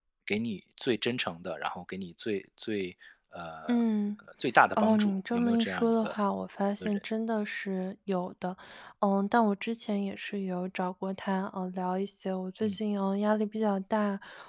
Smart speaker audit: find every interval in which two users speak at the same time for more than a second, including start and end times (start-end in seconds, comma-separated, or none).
4.8-6.2